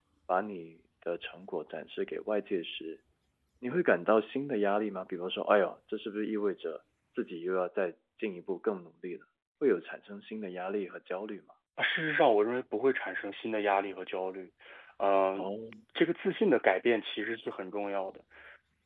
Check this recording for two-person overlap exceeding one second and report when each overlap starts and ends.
none

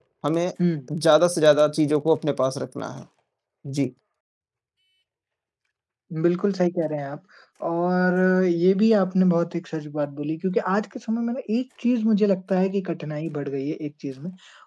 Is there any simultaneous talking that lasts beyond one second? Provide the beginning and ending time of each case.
none

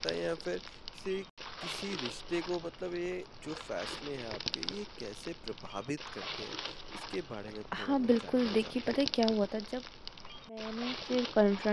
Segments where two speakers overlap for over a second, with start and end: 7.8-9.0

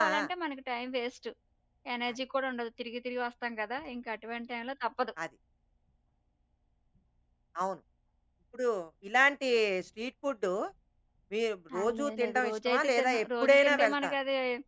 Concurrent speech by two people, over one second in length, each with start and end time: 11.8-14.2

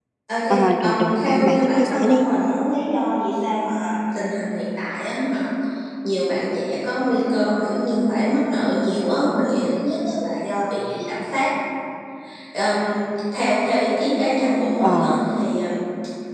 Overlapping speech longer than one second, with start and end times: 0.8-2.3

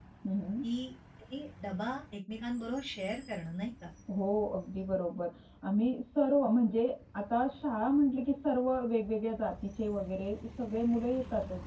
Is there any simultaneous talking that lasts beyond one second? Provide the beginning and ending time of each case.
none

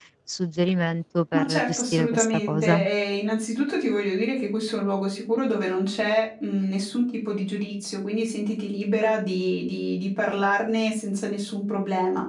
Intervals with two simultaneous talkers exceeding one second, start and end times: 1.4-2.8

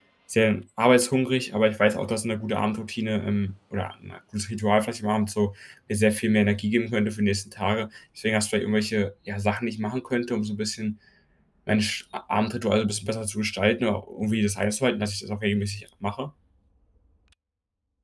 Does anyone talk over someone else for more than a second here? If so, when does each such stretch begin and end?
none

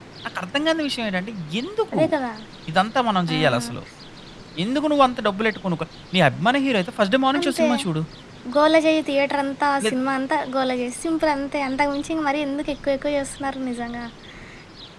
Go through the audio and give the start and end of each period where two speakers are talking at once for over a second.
none

